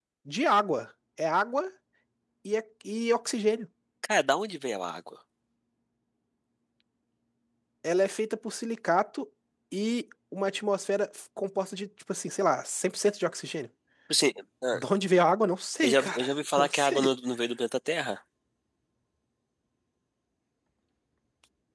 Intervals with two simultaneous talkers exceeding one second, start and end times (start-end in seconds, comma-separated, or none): 15.8-17.1